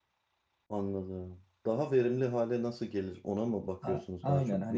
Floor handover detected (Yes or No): Yes